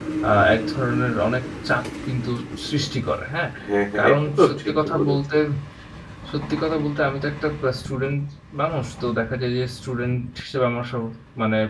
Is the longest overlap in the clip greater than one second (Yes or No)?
Yes